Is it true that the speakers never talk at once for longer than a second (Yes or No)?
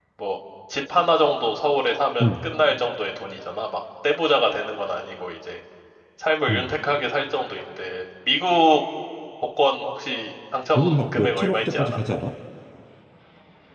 No